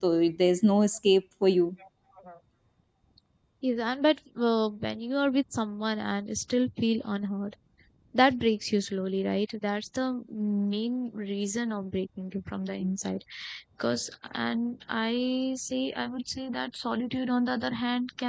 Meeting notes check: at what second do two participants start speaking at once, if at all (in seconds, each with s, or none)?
none